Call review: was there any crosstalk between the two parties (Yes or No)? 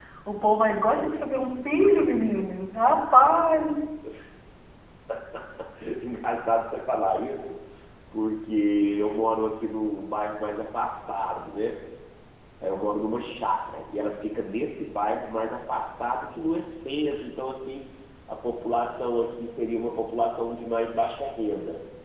No